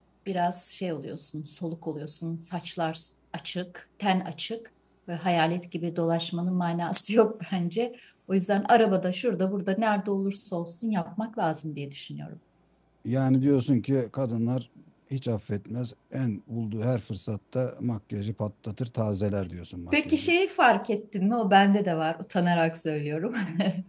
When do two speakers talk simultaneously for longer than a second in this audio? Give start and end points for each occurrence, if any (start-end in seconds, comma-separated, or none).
none